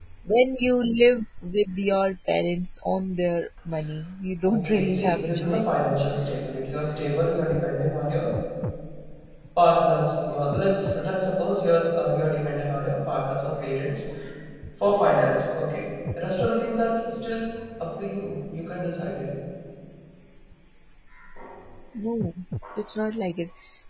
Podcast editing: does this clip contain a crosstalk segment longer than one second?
Yes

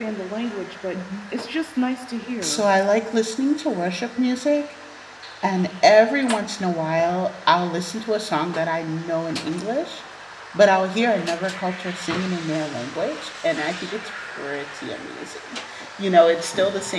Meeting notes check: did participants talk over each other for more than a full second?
No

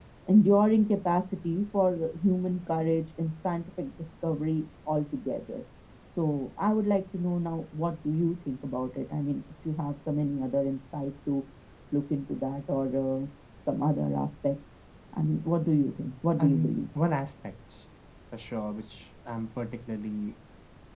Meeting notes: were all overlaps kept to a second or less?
Yes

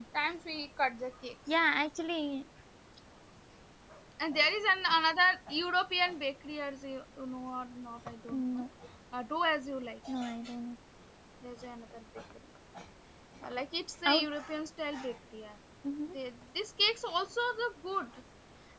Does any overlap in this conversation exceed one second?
No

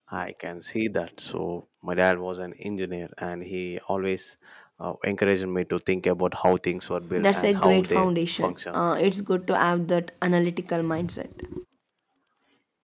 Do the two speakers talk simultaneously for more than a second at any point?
Yes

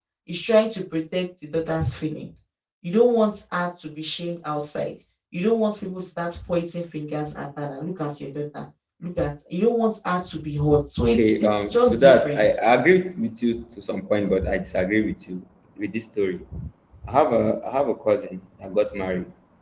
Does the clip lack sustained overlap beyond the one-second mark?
No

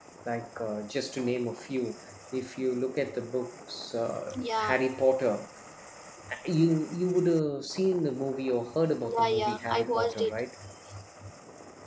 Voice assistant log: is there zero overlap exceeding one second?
No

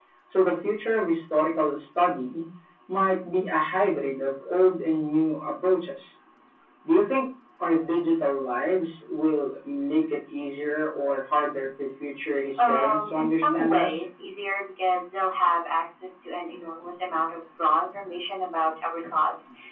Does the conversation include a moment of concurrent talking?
Yes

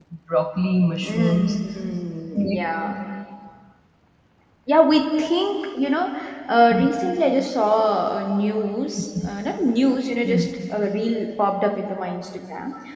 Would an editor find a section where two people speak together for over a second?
No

